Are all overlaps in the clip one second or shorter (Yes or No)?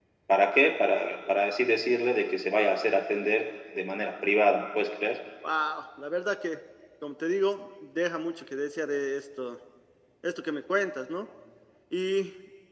Yes